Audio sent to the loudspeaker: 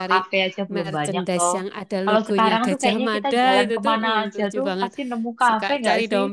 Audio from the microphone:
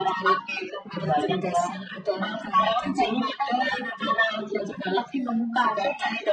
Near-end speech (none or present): none